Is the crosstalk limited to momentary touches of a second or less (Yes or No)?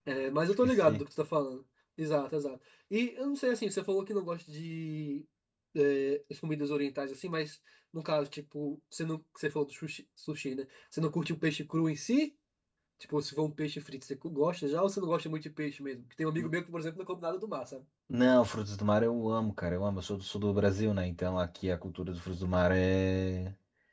Yes